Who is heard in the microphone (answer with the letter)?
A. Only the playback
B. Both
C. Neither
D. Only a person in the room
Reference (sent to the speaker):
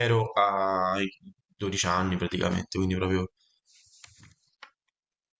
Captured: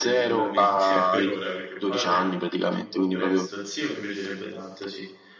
B